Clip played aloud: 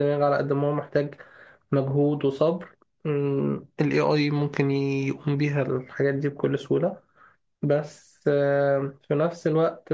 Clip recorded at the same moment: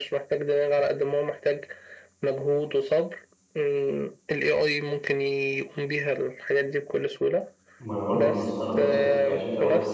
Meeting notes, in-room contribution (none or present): present